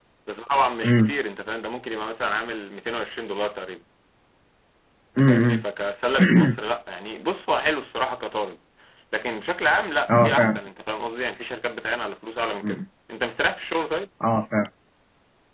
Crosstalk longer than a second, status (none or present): none